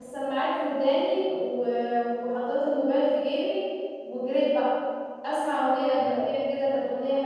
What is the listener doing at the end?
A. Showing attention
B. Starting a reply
A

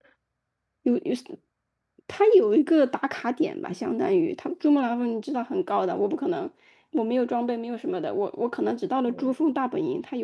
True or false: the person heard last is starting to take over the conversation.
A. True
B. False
B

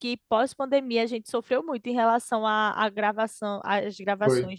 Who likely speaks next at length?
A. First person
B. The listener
A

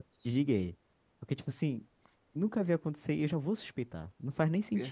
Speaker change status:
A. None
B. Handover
B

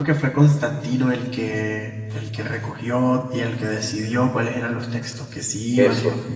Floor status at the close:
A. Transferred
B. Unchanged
A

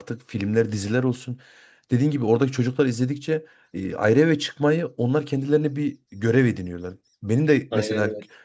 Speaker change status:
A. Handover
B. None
B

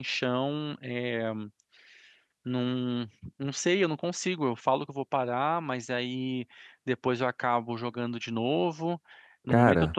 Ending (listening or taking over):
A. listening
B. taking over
A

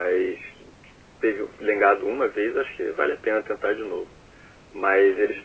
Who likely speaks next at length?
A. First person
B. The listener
A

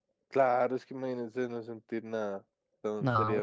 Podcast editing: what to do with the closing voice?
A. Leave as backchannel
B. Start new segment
A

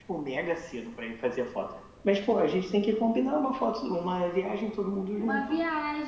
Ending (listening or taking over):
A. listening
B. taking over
B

